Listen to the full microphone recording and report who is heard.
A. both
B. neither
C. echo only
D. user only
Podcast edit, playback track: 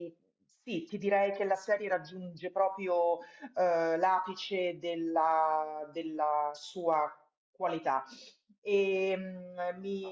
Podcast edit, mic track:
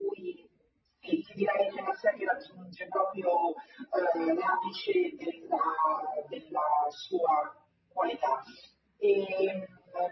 C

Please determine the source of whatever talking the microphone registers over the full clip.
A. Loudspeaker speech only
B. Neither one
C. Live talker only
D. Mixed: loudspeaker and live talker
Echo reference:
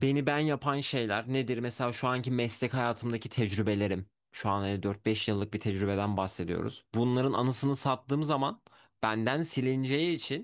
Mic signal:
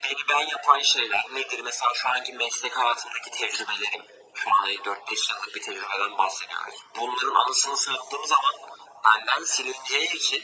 A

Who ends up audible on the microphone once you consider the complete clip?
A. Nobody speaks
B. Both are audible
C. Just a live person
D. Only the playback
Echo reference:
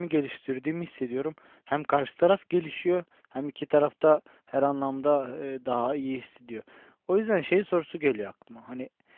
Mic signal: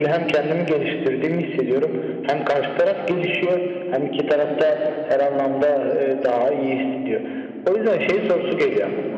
D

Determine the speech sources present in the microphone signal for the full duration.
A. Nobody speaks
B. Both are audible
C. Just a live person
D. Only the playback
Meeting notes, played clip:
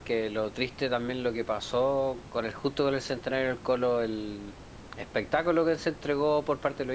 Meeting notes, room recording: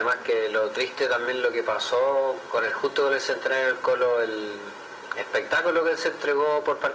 D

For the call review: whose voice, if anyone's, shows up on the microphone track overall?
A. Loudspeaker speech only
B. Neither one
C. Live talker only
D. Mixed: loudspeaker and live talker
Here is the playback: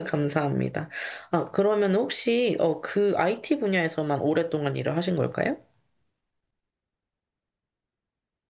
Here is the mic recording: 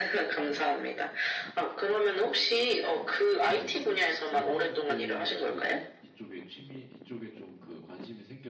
D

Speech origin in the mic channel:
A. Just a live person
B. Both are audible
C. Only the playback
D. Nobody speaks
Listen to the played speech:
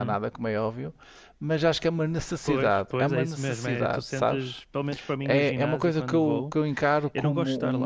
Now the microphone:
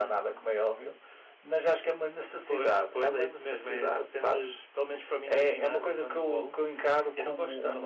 C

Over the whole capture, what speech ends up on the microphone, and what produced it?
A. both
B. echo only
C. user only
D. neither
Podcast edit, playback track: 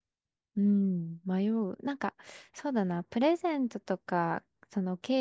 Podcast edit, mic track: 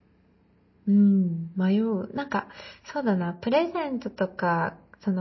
B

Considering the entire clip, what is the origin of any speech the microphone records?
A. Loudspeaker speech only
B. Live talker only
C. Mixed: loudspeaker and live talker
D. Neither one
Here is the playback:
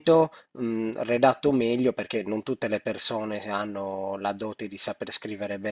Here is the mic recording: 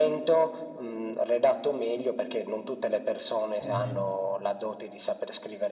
C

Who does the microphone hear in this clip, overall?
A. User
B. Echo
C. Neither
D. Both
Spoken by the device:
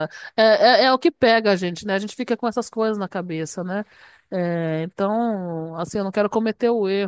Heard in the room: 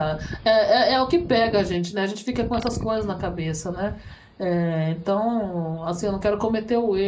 B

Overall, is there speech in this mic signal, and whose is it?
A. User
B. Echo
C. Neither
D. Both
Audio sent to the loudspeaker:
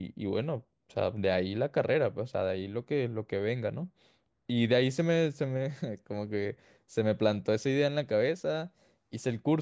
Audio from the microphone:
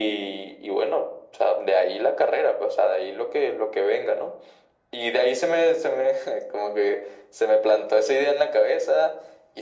B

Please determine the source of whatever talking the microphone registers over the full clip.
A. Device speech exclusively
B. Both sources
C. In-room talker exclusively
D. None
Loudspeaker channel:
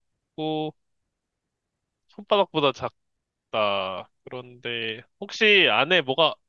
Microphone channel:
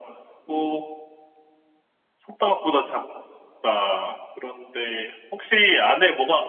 A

